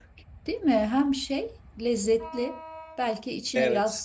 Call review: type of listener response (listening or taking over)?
listening